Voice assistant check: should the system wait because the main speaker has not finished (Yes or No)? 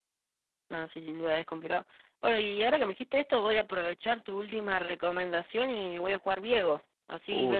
No